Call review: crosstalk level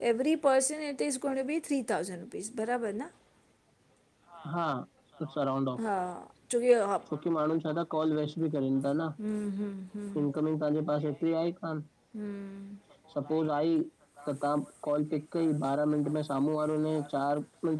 none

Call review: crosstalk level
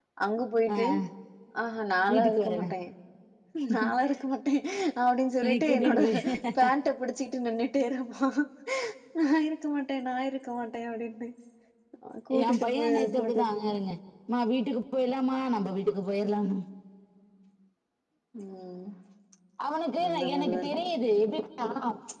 present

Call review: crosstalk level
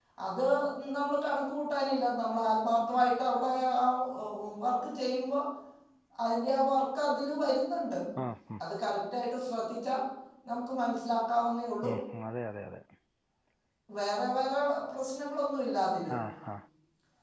none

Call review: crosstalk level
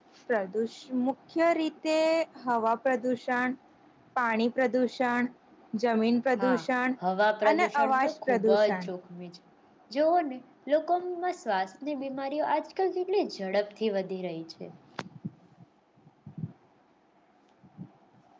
present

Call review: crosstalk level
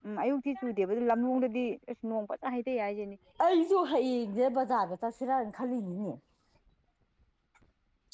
none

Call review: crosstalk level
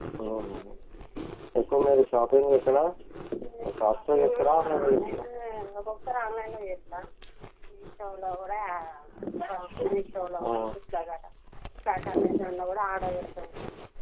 present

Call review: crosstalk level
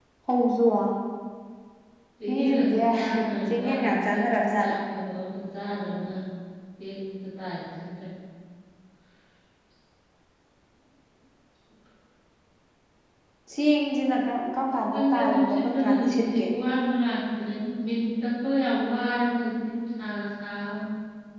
present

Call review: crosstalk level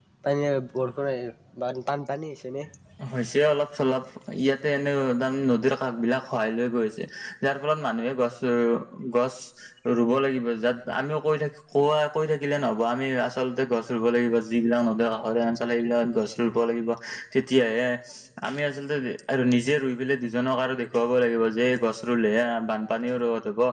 none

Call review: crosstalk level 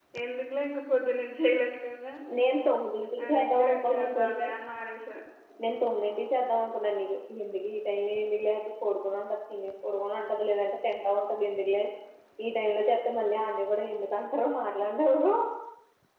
present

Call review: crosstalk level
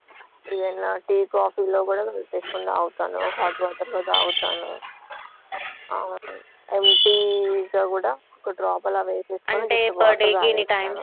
present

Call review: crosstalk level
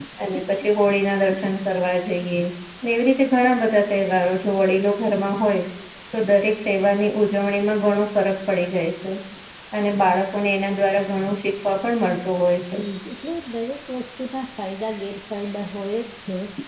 none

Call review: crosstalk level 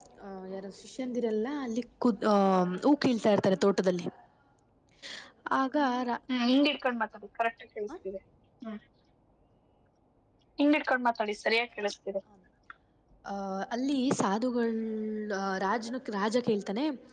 none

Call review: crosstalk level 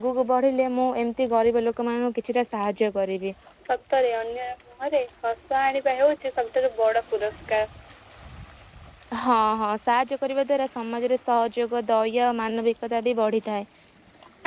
none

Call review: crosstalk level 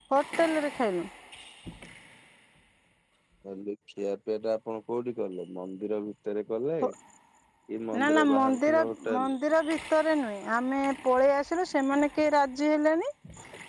present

